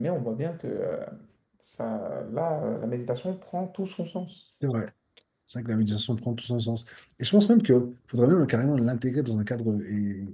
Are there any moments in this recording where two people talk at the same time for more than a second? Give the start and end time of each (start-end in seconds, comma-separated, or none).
none